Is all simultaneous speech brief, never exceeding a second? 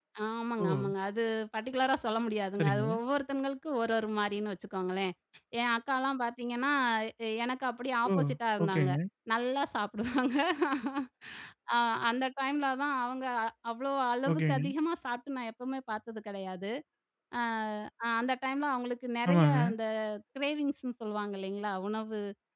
Yes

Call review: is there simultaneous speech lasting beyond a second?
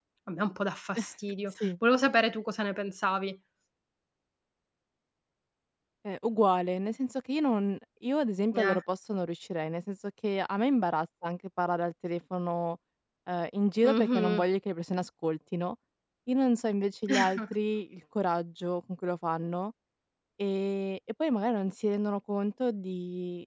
No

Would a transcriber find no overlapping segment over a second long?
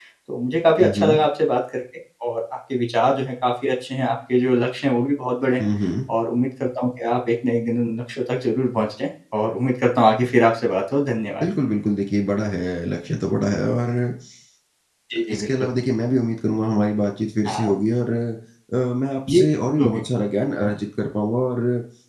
Yes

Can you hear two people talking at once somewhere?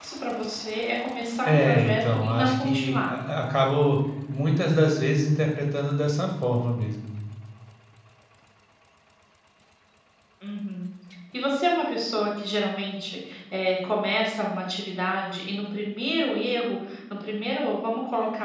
Yes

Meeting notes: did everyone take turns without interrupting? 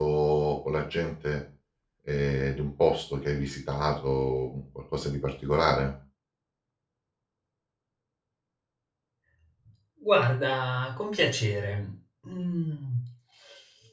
Yes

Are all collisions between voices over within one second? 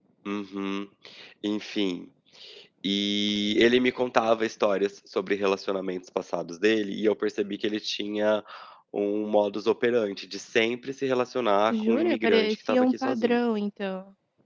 No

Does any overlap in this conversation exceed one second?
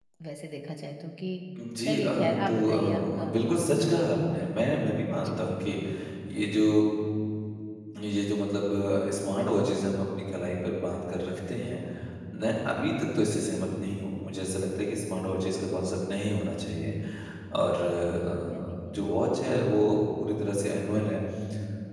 Yes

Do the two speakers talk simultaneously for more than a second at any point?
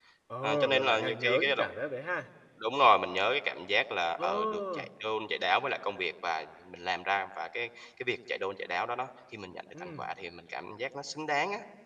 Yes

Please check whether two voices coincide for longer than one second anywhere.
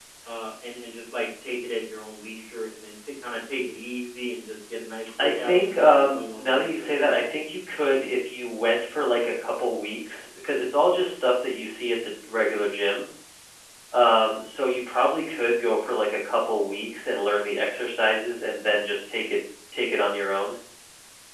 Yes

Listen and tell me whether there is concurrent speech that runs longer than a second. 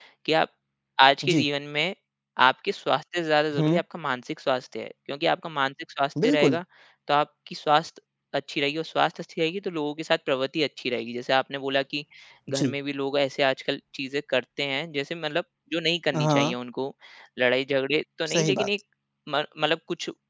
No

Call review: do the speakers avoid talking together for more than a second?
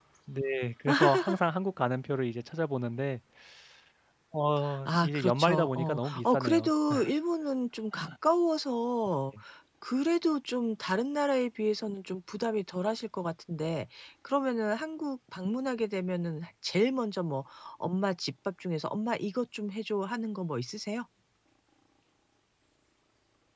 No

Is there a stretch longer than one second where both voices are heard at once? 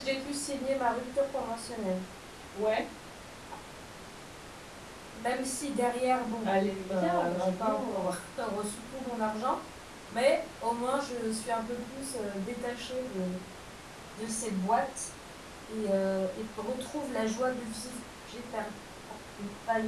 Yes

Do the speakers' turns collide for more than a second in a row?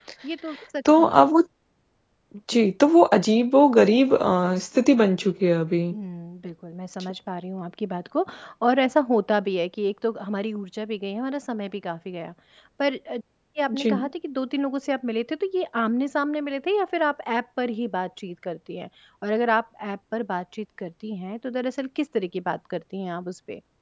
No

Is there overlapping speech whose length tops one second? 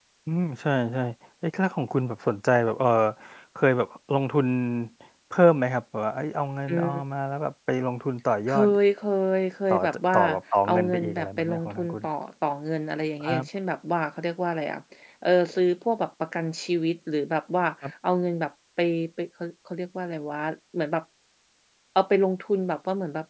Yes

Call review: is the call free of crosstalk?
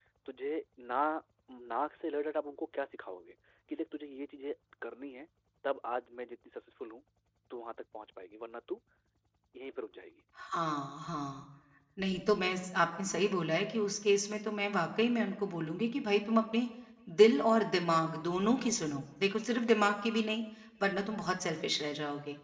Yes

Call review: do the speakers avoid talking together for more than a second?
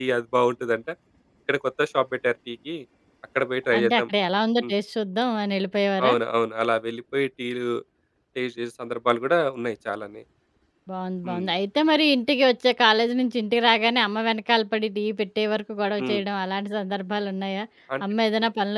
Yes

